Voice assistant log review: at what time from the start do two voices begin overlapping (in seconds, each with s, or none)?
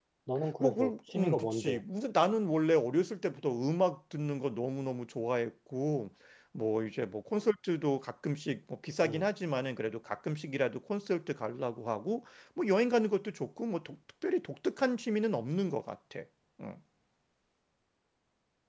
0.6 s